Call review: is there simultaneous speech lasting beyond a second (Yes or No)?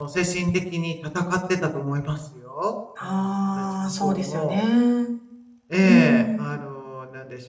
Yes